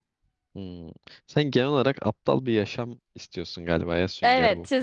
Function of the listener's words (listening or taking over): taking over